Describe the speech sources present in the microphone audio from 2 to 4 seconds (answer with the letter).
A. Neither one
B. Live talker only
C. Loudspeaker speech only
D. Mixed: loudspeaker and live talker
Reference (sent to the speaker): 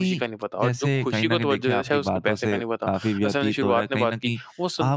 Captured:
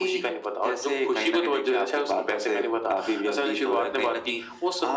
C